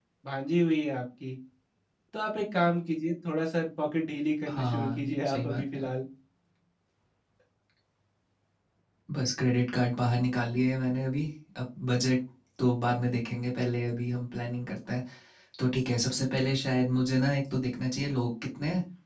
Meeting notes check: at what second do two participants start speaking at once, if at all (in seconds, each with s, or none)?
4.5 s